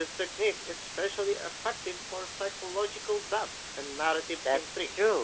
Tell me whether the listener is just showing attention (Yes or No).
No